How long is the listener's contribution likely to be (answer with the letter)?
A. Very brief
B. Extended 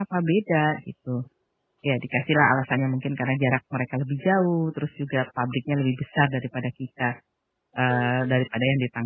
A